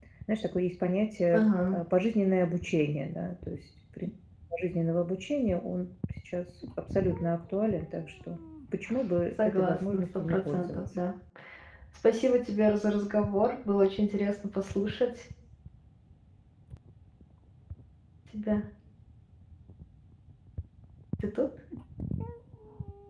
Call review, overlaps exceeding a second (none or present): present